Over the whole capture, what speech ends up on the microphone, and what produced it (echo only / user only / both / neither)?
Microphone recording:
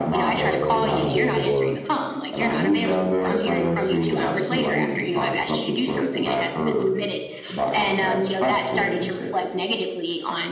both